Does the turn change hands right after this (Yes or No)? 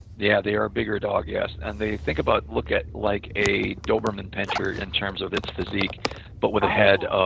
No